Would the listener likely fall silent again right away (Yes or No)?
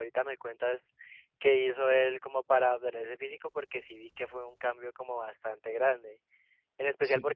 Yes